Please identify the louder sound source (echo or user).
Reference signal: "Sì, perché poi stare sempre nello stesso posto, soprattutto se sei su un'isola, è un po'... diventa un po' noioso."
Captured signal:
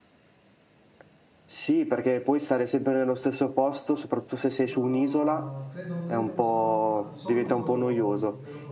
echo